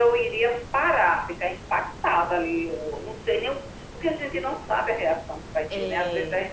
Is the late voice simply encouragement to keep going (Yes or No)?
Yes